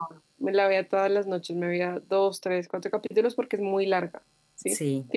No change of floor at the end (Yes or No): Yes